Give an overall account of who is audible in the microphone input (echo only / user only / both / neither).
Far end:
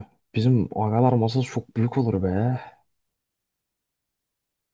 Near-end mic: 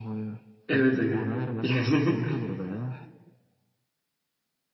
both